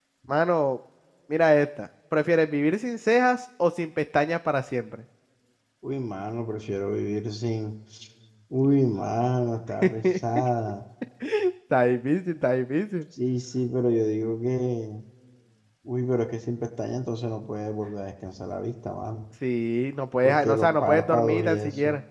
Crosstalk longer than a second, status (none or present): present